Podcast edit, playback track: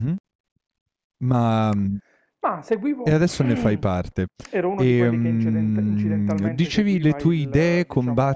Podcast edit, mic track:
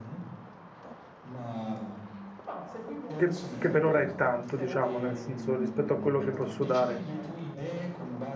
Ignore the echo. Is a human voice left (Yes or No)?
Yes